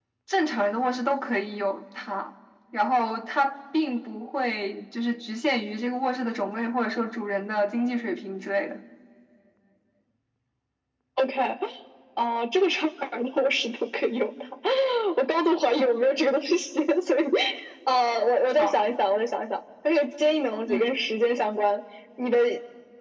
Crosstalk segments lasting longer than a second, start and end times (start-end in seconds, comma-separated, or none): none